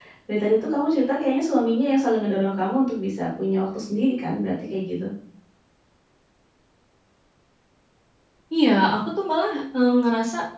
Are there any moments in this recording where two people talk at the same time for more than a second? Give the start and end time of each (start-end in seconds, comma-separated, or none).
none